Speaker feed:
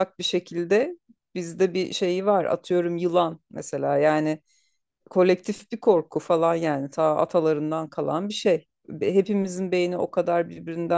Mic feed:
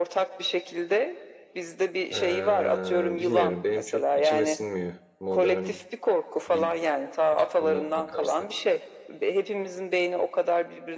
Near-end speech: present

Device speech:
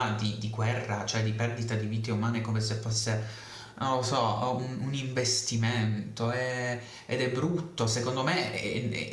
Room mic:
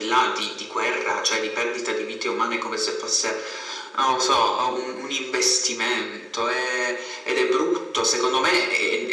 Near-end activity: none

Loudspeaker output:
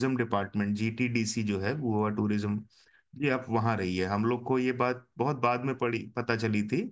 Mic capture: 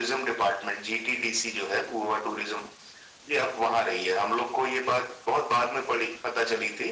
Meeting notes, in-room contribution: none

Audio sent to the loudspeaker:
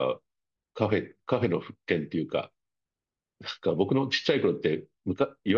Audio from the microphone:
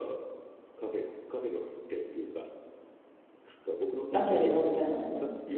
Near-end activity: present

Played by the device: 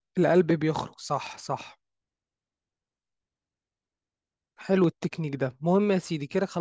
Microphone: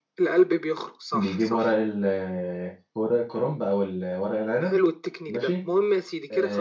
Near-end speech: present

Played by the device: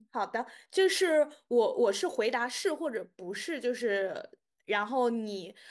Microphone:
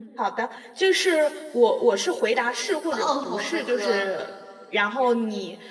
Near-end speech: present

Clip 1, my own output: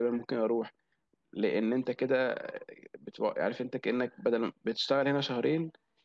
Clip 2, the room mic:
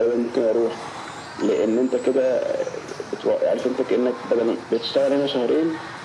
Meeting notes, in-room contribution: none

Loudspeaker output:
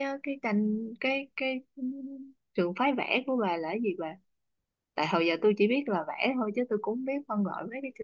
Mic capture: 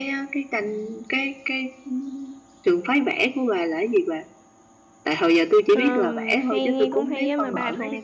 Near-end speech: present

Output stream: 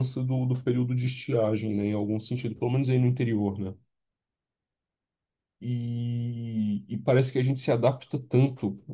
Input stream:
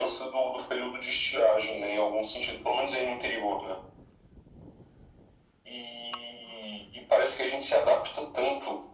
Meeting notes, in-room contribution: none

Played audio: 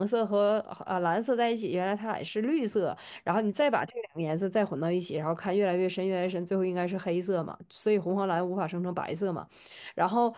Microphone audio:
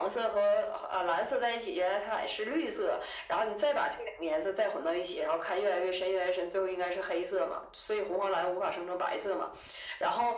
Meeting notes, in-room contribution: none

